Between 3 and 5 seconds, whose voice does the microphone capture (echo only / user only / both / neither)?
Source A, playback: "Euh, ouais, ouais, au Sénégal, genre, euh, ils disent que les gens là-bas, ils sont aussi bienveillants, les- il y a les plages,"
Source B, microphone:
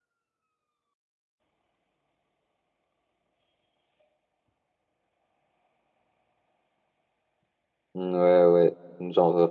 neither